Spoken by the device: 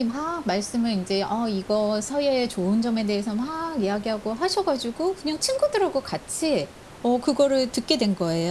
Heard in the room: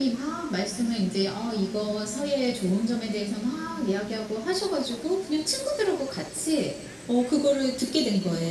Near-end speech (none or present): present